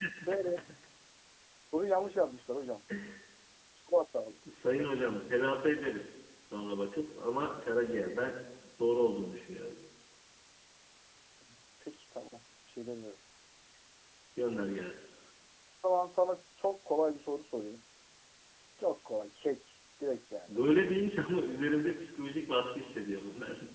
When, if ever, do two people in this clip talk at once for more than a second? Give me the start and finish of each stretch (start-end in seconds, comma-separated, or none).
none